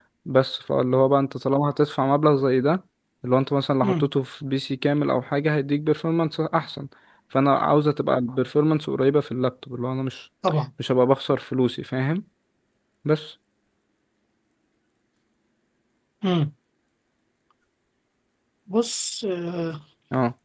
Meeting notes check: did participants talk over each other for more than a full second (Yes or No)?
No